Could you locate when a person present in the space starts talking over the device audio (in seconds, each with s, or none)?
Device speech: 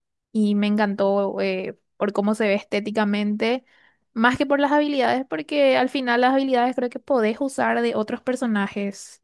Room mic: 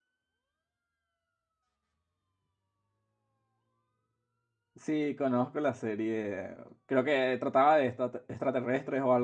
4.7 s